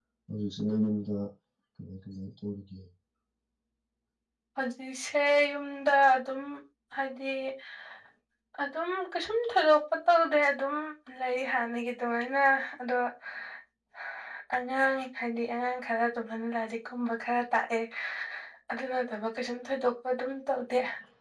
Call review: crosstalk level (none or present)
none